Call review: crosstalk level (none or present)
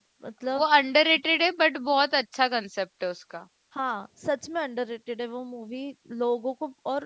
none